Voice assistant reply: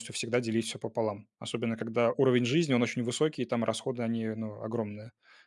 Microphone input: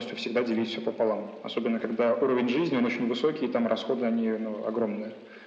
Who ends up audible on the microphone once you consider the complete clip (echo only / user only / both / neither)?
echo only